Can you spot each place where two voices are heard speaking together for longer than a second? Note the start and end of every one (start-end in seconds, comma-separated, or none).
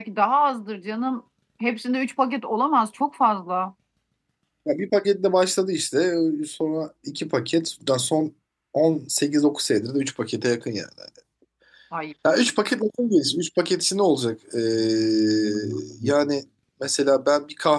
none